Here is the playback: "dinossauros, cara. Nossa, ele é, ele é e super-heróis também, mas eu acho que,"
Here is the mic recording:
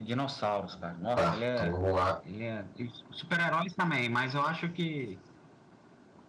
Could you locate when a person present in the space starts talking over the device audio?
1 s

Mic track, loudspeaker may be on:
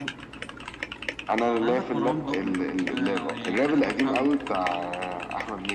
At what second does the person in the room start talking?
none

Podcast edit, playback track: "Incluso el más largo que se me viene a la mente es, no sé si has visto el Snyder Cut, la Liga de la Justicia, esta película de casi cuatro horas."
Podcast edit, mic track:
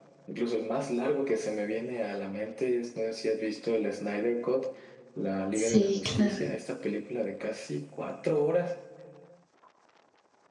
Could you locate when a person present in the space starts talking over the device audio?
6 s

